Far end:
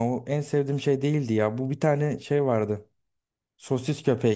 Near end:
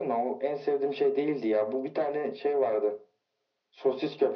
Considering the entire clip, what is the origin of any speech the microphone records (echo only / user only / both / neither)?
echo only